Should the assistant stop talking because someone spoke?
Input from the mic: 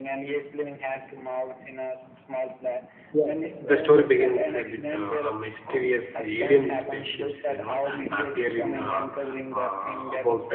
Yes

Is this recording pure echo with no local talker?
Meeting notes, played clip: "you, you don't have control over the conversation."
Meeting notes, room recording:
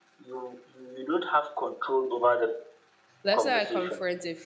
No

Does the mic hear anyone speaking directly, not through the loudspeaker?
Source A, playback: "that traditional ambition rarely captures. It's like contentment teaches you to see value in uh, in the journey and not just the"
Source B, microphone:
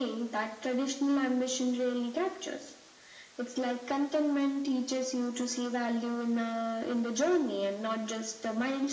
No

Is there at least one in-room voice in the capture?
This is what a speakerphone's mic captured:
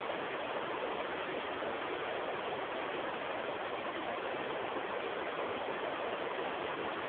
No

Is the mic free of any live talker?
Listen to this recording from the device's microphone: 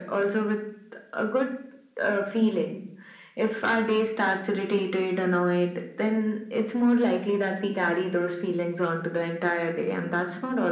Yes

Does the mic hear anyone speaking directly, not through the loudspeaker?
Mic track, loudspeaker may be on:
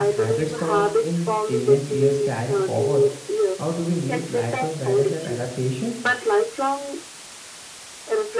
Yes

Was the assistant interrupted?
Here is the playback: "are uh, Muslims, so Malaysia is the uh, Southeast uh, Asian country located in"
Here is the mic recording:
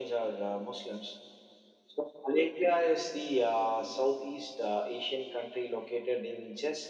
No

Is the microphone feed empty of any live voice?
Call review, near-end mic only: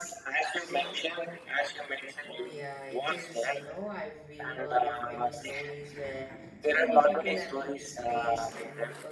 No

